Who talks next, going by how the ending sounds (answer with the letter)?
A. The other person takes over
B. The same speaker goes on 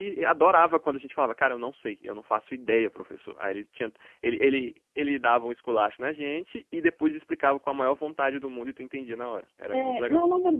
A